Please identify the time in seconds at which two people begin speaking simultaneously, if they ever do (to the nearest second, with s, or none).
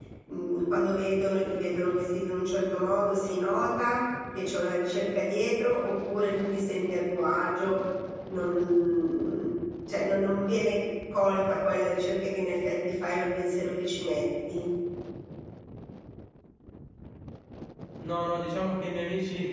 none